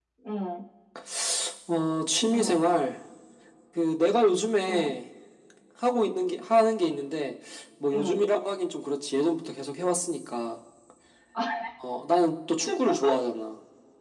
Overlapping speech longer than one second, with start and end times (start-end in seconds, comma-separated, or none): none